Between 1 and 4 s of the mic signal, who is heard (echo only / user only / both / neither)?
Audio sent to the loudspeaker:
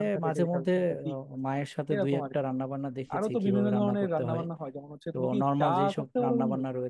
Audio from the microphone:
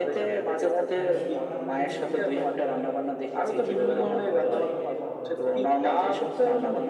both